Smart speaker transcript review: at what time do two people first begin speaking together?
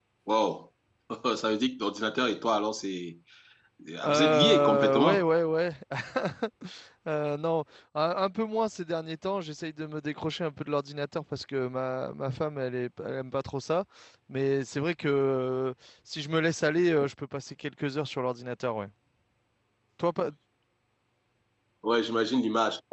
4.1 s

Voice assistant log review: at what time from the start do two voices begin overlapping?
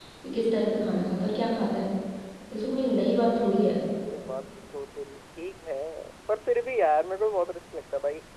none

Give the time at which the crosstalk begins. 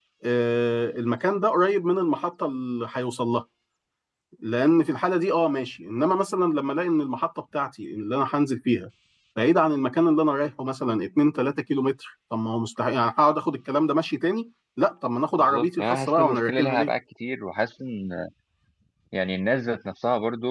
15.4 s

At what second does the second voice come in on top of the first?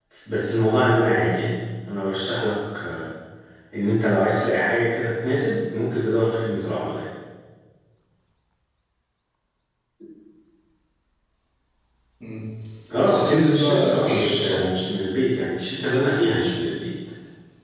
13.0 s

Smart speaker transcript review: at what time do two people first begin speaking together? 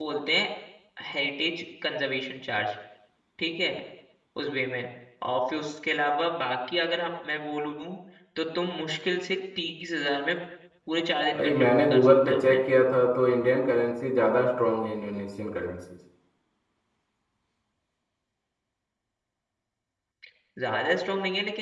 11.4 s

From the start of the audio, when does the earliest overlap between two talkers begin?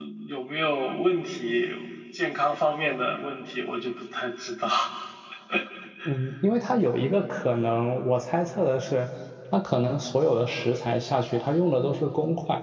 none

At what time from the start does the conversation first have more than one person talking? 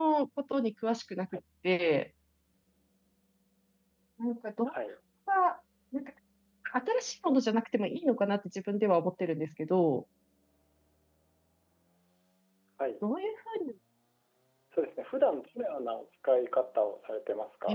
none

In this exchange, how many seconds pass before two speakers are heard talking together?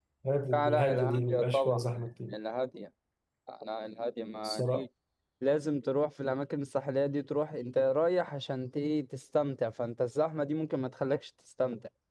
0.5 s

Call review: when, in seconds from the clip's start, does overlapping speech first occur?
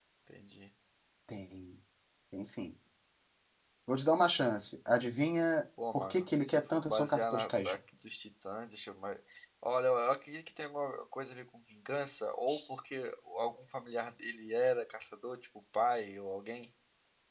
5.8 s

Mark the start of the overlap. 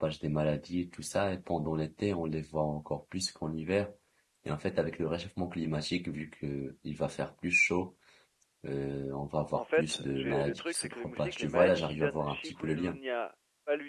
9.5 s

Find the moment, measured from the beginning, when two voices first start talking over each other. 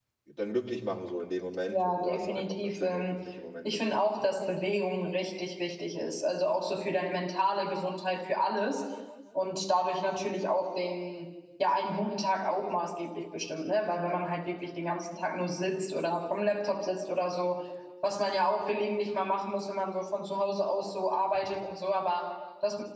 1.7 s

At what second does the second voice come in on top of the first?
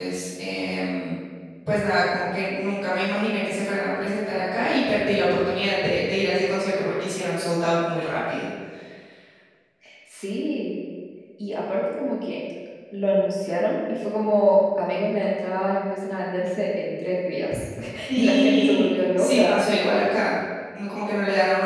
18.1 s

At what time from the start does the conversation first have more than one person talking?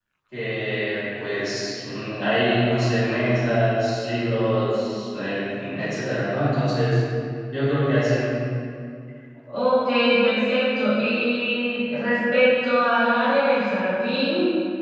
none

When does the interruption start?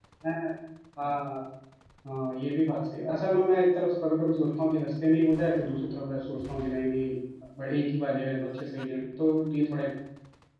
none

